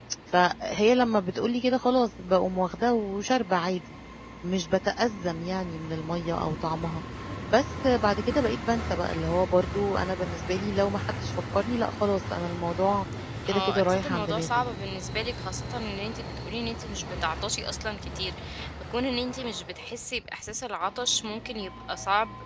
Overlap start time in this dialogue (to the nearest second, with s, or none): 13 s